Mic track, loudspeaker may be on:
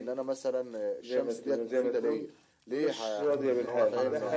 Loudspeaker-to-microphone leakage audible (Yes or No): Yes